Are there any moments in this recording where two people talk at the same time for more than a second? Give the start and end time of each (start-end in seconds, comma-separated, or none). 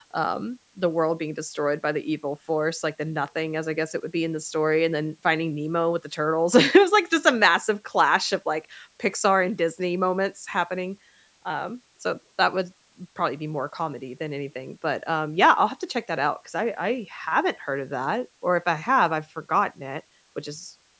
none